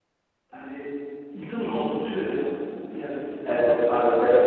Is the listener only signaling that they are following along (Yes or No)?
No